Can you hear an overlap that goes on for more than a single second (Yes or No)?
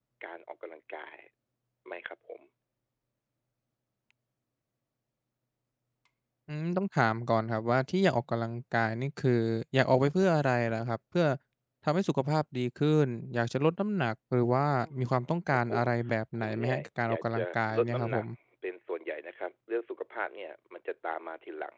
Yes